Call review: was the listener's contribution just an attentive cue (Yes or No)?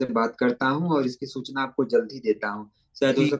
Yes